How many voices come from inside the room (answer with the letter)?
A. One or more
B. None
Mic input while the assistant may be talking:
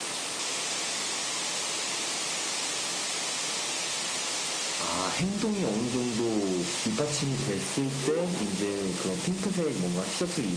A